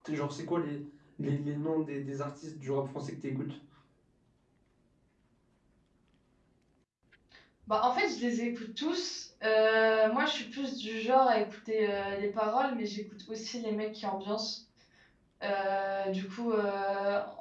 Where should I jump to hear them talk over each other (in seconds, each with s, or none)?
none